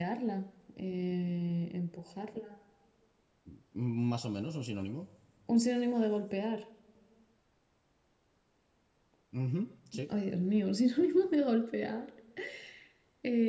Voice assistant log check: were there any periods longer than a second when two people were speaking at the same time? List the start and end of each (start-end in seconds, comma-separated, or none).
none